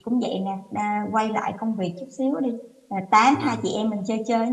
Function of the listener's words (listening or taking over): listening